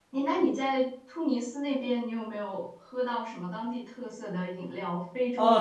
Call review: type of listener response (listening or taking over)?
taking over